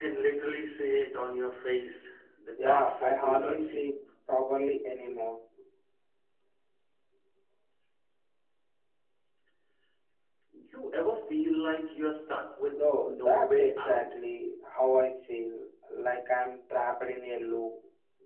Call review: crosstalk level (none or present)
present